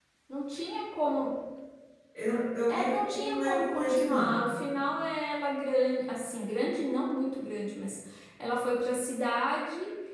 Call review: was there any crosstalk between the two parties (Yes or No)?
Yes